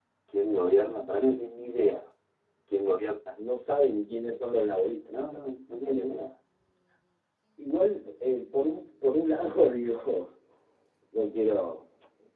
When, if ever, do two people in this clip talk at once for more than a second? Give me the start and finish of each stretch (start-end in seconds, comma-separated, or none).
none